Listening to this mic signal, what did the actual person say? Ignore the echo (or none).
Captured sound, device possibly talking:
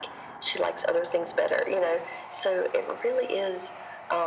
none